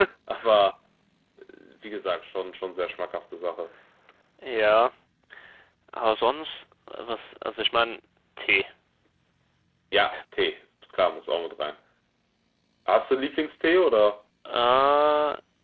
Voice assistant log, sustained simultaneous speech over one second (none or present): none